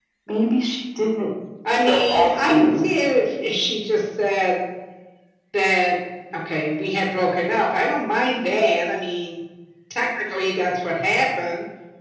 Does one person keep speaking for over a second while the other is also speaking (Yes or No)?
Yes